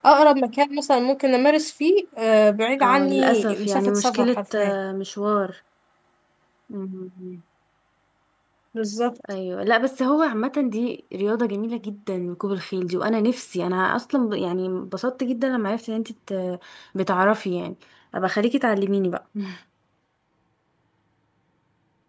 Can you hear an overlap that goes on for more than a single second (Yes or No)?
Yes